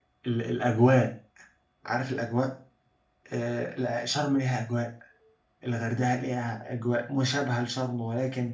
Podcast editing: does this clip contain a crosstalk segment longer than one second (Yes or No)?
No